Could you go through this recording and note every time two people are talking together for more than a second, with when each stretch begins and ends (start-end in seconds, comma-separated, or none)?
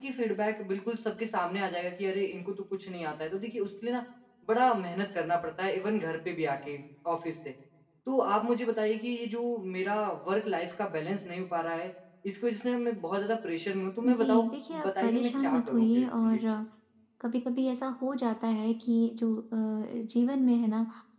14.1-16.4